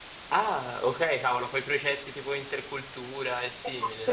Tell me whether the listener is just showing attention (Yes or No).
No